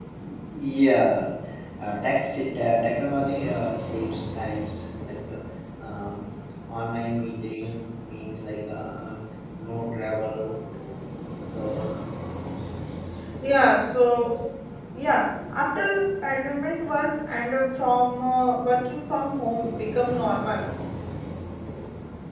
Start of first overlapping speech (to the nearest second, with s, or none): none